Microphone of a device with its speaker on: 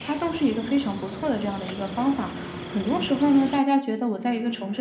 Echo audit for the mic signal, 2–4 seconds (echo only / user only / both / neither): echo only